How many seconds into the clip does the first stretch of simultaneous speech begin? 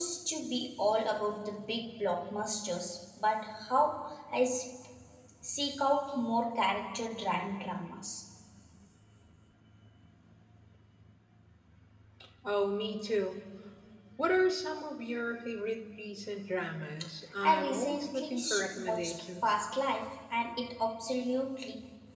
17.4 s

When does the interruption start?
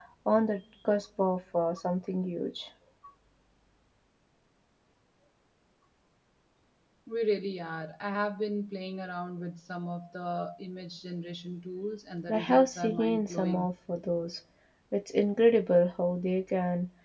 12.3 s

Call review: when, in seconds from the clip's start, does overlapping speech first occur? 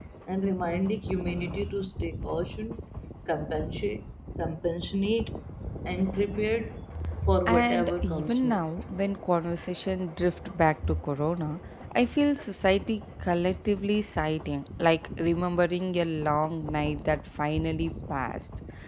7.5 s

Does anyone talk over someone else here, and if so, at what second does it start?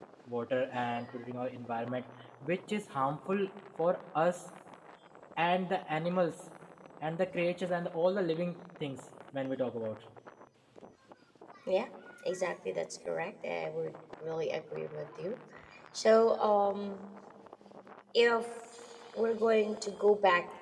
none

